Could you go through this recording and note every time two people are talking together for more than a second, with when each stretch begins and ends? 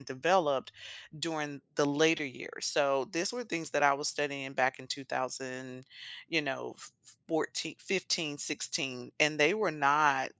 none

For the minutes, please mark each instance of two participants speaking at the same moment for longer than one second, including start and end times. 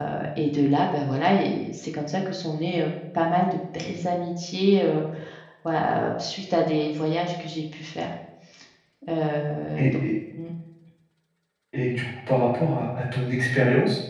none

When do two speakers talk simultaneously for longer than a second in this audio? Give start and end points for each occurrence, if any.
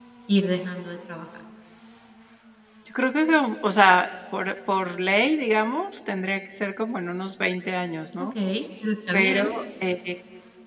none

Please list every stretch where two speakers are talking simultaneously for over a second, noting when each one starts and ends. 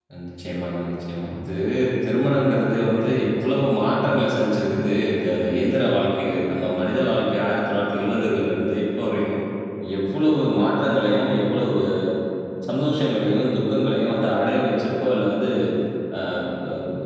none

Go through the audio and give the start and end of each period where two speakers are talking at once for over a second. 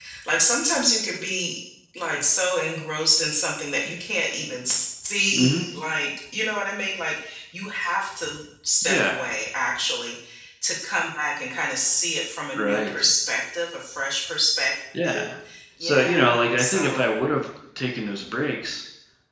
15.8-17.0

